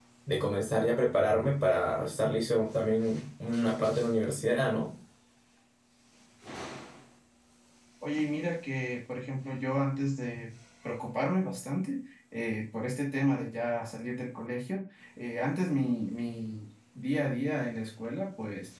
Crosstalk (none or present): none